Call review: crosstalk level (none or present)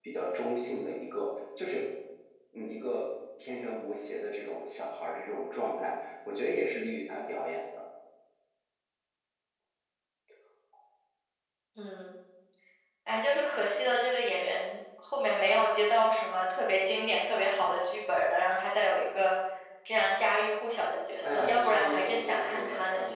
present